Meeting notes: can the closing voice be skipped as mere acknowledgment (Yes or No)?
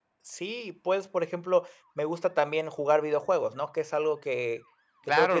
No